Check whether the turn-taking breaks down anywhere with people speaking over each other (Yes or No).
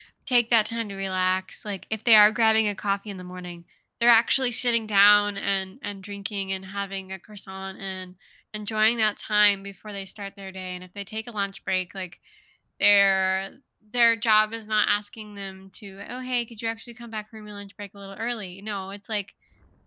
No